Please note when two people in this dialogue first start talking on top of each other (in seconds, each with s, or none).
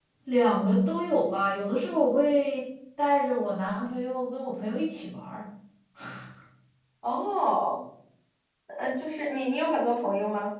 none